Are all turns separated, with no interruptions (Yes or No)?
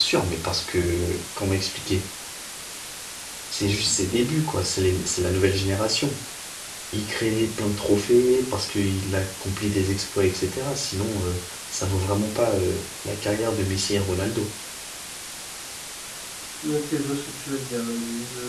Yes